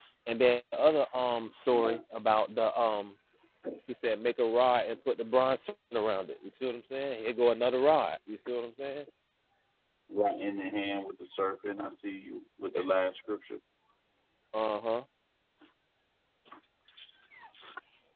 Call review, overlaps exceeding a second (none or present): none